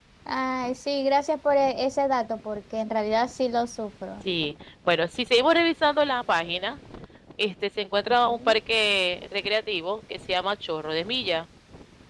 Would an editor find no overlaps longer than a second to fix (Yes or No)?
Yes